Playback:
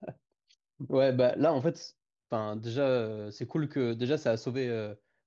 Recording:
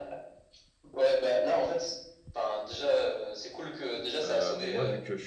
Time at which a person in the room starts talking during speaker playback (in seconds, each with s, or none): 4.2 s